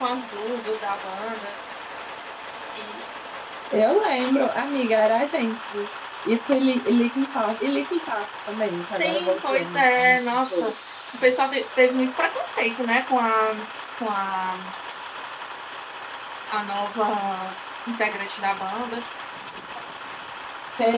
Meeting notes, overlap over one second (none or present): present